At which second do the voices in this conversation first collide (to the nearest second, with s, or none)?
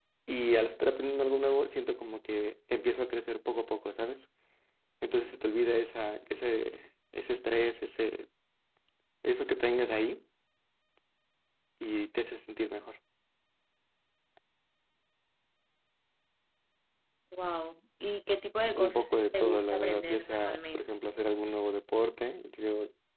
19 s